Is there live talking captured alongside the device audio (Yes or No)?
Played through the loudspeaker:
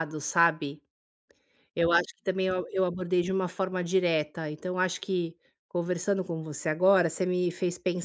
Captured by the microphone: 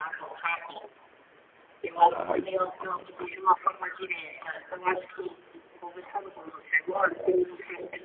Yes